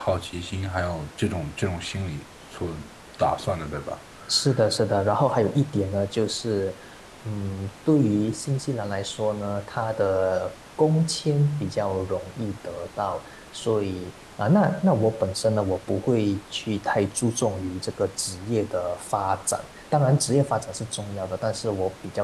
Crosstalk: none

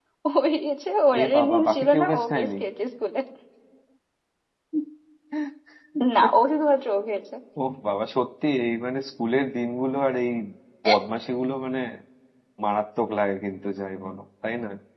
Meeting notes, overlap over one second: present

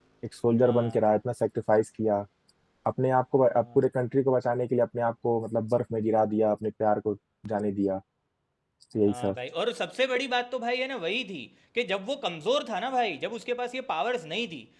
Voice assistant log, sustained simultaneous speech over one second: none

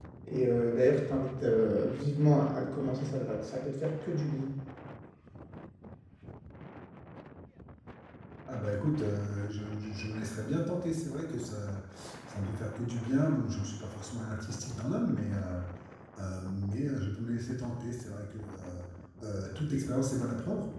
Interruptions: none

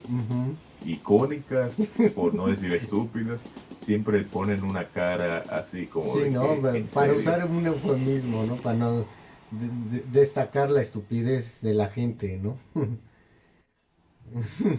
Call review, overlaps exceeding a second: present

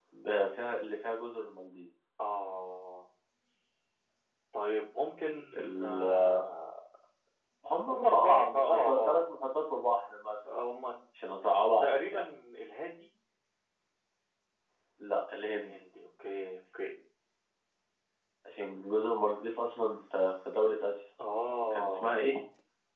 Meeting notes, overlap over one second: present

